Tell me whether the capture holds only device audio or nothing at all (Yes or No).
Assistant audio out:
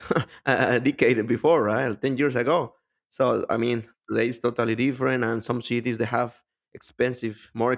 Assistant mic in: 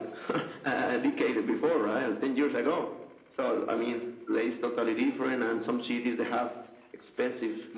Yes